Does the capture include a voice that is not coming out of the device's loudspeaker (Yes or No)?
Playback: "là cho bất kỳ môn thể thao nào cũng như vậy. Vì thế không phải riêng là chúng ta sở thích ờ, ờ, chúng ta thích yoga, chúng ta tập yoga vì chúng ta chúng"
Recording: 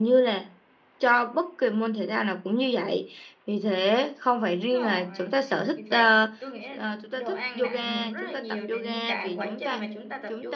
Yes